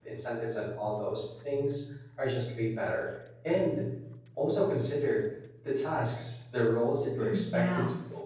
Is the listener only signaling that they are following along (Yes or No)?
Yes